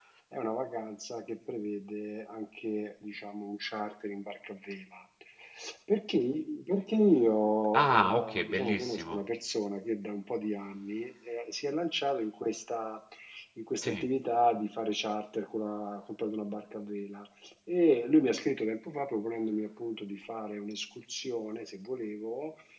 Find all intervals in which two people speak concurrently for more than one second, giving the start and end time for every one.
7.7-9.2

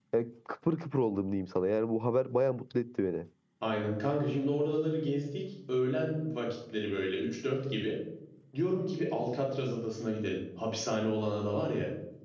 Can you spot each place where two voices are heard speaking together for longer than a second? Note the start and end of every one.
none

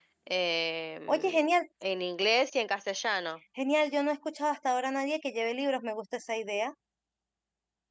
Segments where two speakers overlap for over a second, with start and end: none

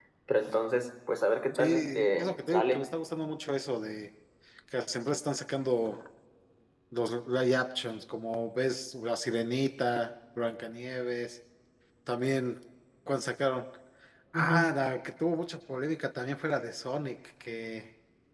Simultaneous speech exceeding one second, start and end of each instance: 1.6-2.8

